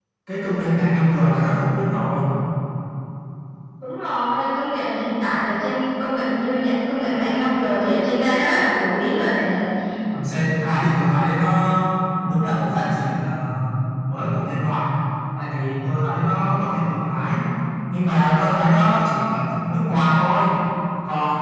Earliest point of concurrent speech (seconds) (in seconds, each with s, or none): none